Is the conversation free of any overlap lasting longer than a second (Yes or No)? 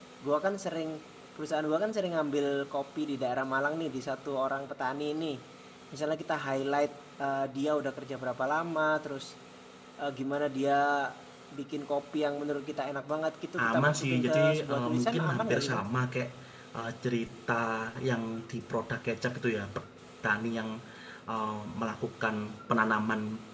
No